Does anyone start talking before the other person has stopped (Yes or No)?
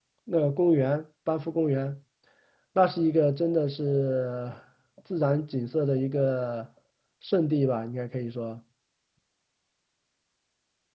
No